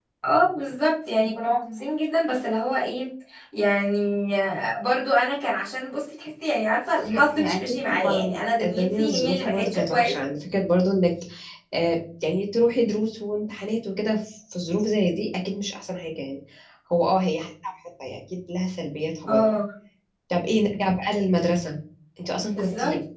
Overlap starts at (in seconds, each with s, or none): 7.0 s